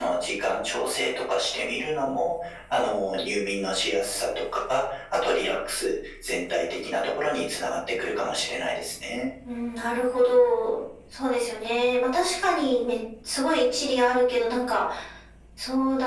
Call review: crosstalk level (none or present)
none